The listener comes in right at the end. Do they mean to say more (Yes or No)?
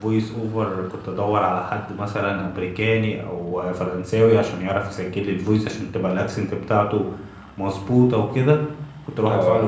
No